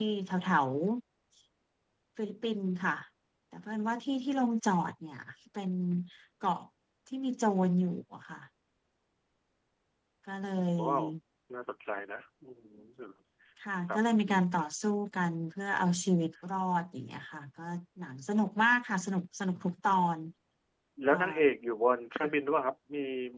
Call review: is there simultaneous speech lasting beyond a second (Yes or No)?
No